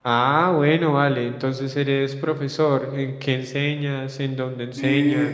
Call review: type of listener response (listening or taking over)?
taking over